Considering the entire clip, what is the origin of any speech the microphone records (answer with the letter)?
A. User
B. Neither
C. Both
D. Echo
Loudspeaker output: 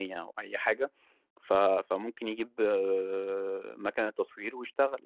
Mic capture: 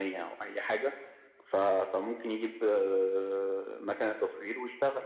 D